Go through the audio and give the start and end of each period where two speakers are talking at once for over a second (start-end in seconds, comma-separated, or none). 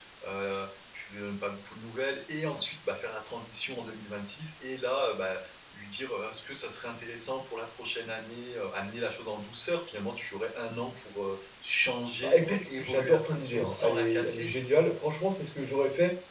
12.2-14.5